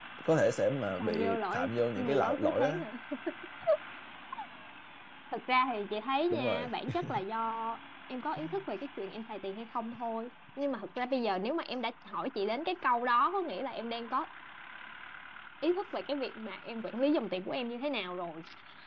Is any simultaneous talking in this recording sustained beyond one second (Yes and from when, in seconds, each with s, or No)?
Yes, from 1.0 s